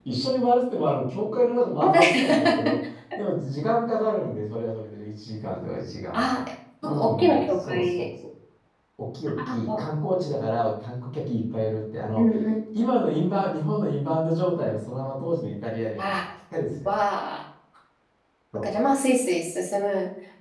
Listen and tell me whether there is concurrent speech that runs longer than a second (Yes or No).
Yes